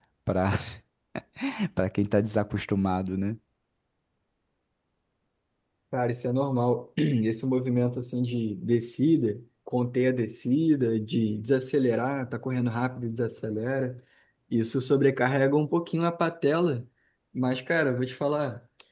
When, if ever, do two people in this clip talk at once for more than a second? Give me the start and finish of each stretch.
none

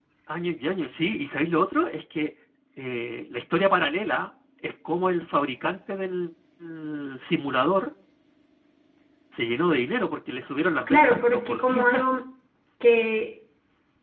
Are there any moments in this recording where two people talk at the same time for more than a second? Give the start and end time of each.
10.9-12.2

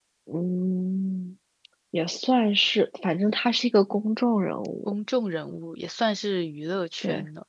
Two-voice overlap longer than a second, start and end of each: none

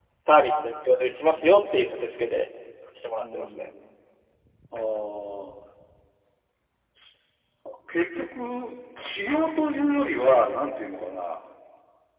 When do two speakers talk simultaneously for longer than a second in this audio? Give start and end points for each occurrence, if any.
none

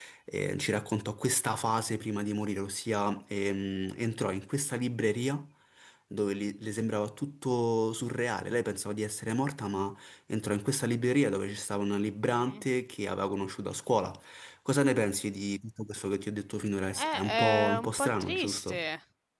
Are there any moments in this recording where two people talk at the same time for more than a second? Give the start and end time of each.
16.9-18.8

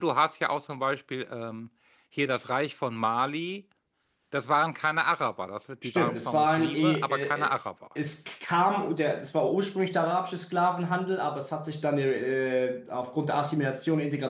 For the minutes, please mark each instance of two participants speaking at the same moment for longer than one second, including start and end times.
5.8-7.5

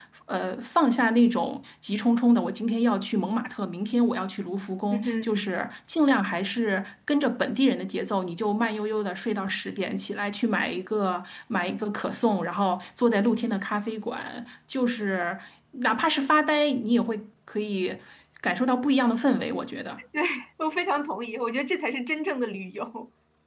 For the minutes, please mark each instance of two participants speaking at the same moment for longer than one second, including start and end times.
none

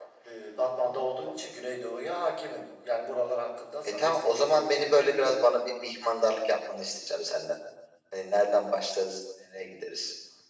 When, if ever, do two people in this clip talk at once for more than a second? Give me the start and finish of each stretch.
3.8-5.5

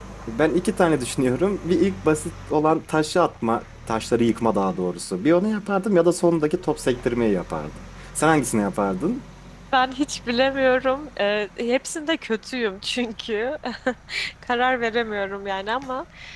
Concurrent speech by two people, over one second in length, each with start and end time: none

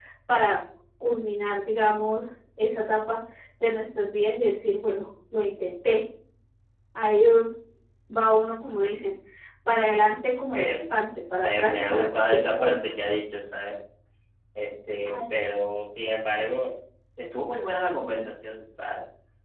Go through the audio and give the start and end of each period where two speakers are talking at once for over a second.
11.4-12.9

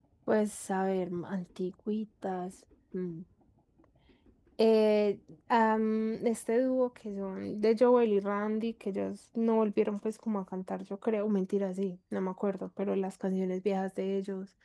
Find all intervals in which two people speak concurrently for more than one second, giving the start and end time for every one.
none

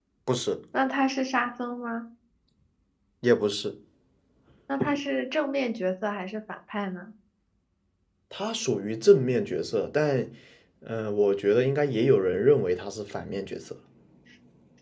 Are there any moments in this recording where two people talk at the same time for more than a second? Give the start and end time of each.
none

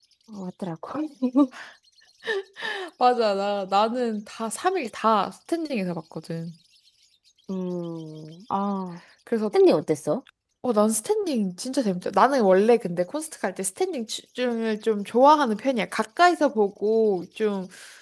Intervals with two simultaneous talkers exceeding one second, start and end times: none

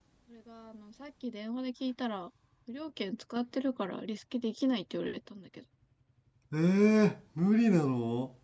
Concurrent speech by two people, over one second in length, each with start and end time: none

